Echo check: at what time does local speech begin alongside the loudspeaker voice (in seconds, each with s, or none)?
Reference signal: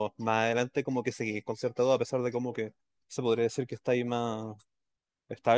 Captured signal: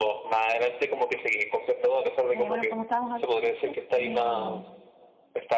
2.3 s